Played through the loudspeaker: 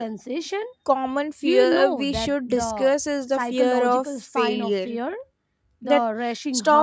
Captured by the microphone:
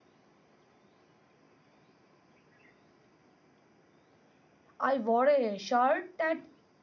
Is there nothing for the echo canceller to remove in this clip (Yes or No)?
Yes